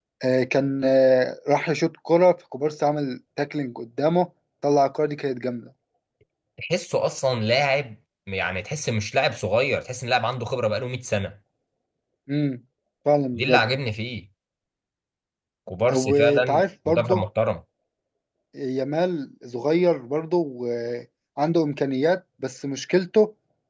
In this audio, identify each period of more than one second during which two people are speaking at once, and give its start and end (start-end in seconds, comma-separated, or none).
15.9-17.2